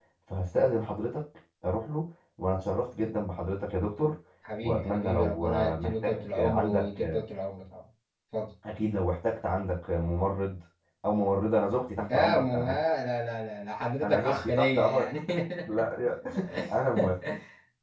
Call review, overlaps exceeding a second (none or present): present